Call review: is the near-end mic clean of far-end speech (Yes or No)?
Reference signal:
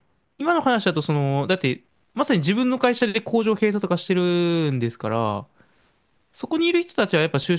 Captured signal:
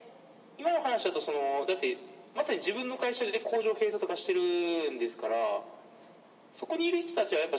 No